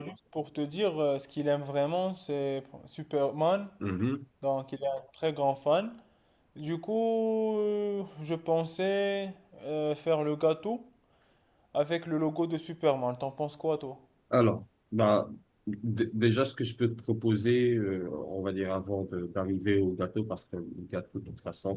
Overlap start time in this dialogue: none

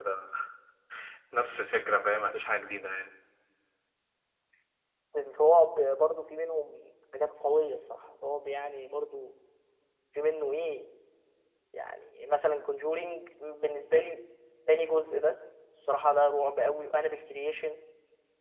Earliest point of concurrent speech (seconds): none

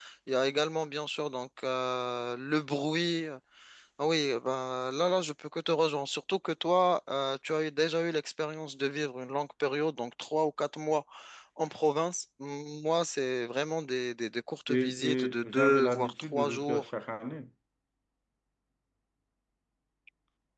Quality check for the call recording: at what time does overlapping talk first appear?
14.7 s

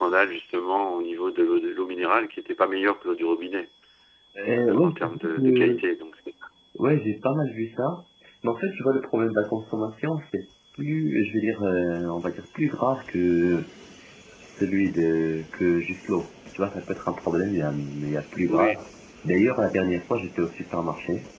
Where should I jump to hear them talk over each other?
4.6 s

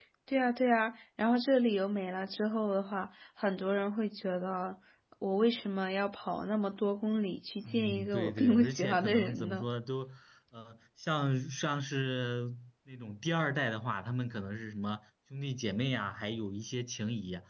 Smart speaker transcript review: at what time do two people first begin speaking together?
7.7 s

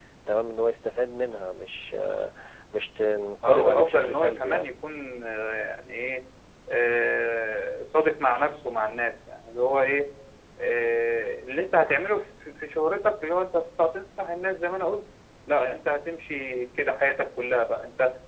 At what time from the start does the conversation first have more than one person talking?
3.4 s

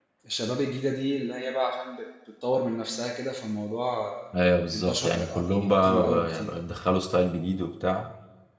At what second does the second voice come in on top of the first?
4.7 s

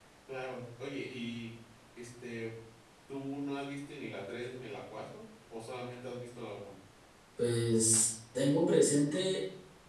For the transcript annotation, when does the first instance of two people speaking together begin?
none

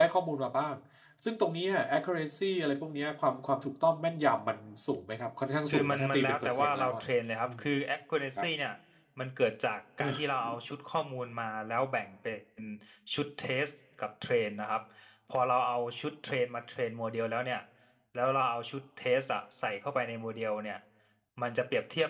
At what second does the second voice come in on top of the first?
5.7 s

